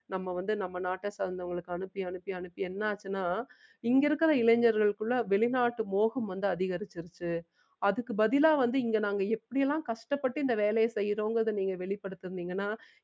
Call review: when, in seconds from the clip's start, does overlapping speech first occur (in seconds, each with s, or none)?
none